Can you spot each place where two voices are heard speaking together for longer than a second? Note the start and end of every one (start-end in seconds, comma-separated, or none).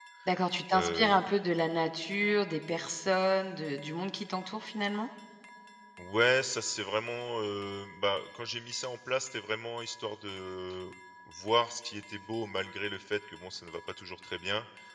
none